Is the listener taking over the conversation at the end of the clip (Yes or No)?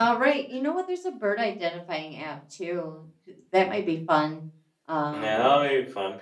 Yes